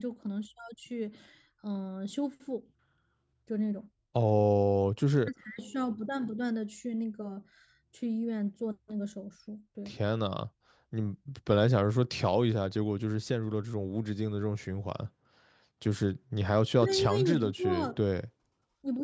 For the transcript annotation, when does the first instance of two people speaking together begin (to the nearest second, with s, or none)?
17 s